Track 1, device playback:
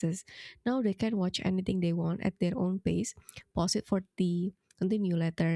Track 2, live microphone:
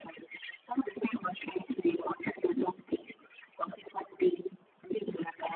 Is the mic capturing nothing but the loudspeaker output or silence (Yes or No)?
Yes